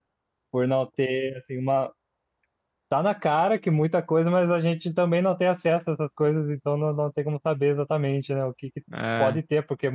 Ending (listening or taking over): listening